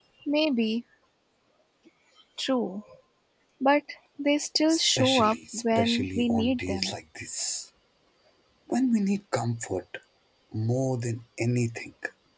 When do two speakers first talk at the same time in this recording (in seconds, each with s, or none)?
4.7 s